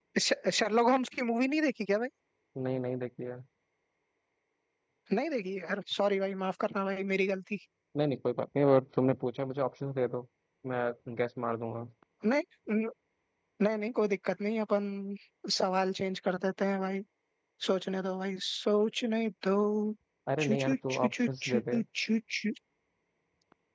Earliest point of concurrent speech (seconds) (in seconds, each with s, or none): 20.4 s